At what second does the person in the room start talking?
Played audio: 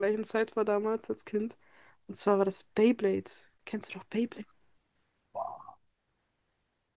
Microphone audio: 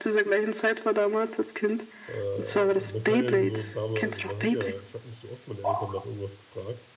2 s

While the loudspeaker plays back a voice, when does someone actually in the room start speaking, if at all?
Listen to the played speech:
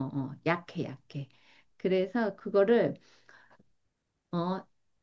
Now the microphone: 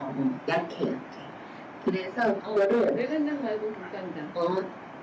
2 s

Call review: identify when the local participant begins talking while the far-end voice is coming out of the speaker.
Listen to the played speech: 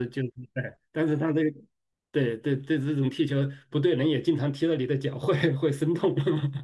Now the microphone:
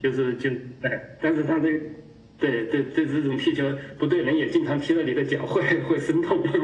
none

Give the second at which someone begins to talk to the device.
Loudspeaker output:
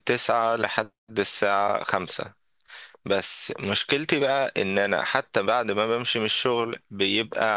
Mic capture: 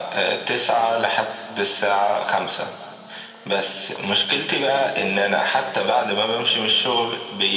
none

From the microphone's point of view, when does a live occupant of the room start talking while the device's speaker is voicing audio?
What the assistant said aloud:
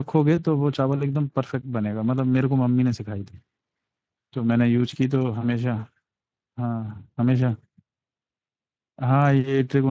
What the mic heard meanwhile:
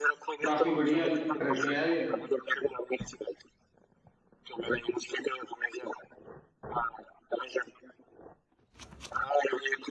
0 s

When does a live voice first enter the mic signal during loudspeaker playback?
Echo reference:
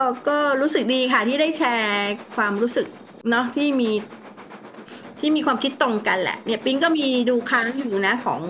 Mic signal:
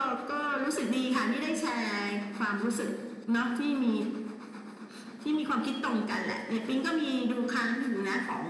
none

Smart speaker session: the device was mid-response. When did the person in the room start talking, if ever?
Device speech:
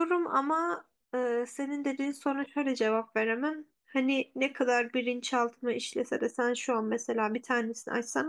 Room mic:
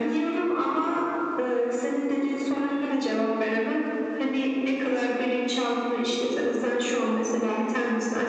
none

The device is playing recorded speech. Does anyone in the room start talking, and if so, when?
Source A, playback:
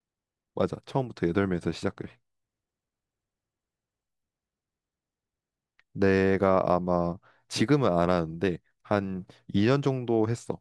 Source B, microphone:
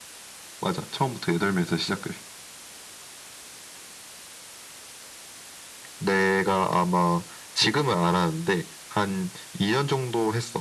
none

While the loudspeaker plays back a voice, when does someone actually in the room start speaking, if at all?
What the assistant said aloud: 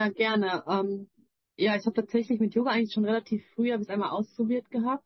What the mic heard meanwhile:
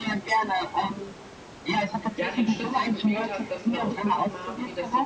2 s

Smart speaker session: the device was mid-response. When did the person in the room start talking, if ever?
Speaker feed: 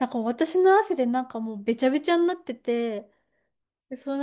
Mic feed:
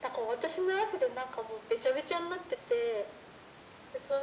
none

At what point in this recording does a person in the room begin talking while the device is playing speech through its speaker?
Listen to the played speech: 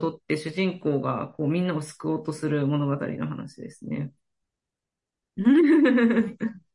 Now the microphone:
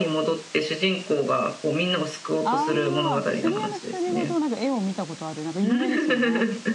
2 s

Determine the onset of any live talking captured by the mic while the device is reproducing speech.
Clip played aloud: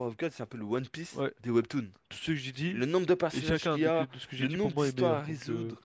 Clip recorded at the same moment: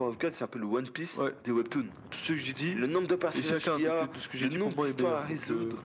none

